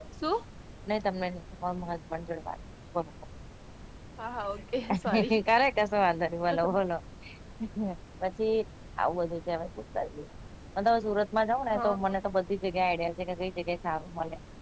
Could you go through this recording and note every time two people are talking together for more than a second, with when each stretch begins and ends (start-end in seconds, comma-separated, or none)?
none